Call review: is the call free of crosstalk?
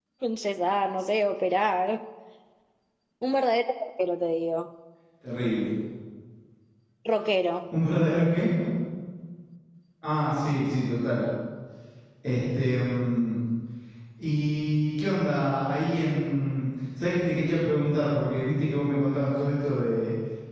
Yes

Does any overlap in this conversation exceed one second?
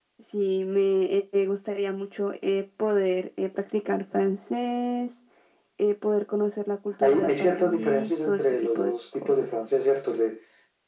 Yes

